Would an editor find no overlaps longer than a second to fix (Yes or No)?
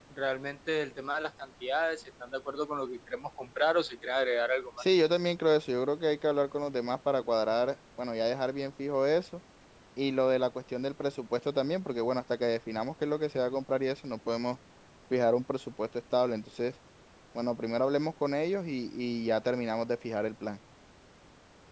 Yes